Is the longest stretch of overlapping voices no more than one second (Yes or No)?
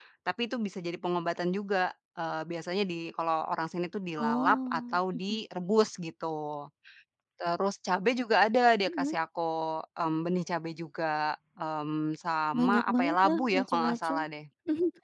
No